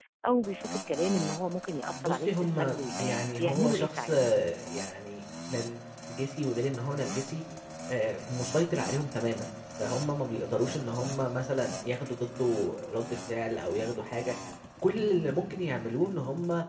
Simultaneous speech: Yes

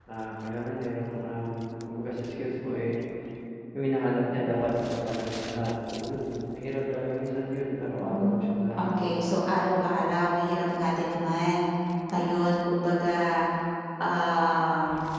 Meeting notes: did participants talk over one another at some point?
Yes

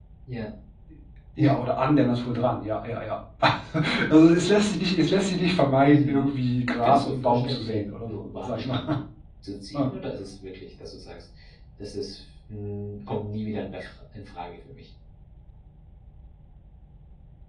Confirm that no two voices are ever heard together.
No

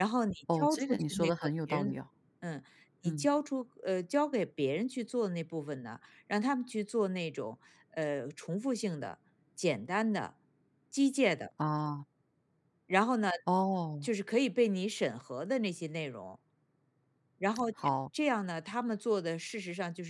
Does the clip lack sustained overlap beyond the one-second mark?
No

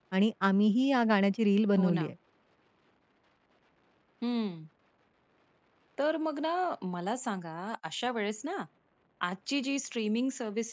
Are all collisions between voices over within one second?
Yes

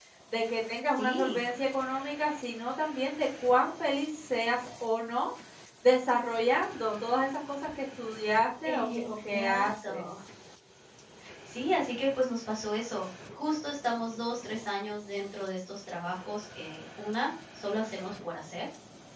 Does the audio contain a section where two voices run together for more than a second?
Yes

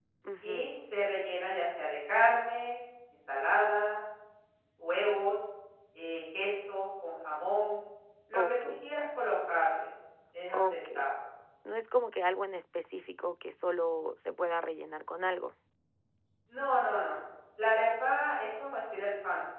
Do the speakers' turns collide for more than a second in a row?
No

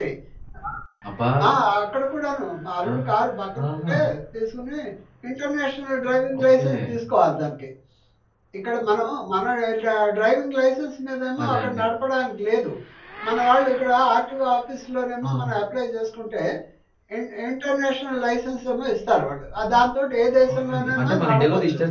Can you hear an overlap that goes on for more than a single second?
Yes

